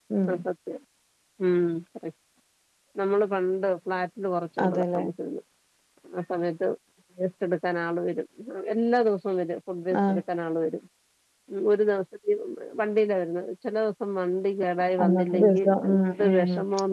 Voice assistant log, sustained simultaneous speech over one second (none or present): present